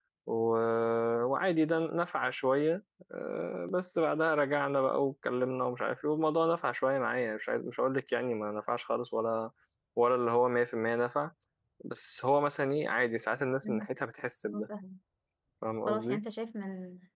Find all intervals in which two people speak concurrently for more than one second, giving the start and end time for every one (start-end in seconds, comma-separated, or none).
none